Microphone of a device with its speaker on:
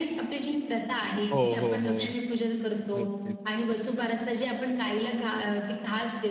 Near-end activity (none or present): present